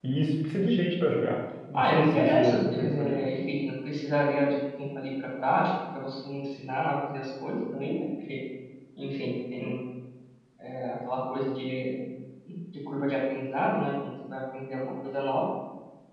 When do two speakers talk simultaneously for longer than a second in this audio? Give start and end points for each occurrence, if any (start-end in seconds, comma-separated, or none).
1.7-3.1